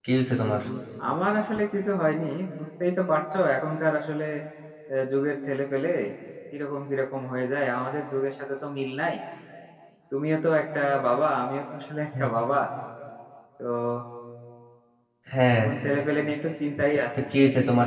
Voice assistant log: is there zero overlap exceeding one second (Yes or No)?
Yes